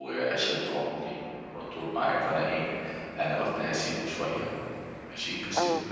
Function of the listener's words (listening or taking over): listening